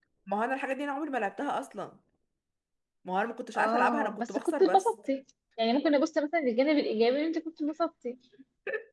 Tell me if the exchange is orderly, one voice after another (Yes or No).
No